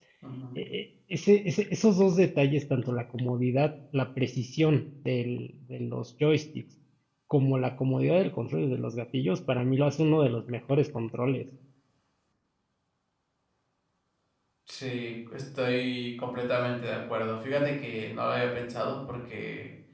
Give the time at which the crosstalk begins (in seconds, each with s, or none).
none